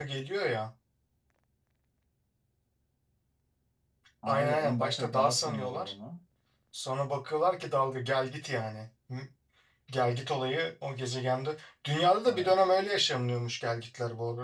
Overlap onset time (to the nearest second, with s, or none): 4 s